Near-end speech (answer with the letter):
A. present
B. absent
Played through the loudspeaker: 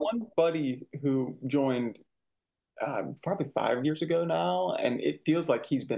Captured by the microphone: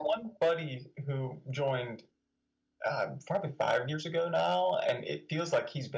B